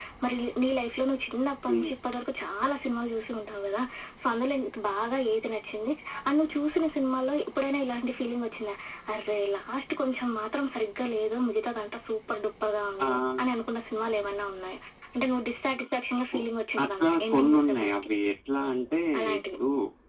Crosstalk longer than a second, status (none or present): present